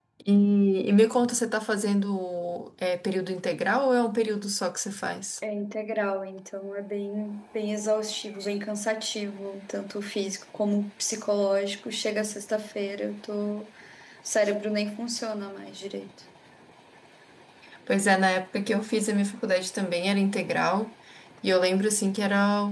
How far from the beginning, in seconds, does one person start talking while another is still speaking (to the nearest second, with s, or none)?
none